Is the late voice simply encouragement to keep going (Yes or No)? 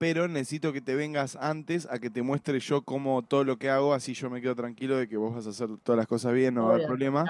No